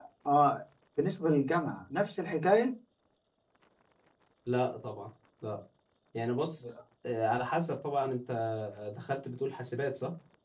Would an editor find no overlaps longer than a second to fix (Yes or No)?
Yes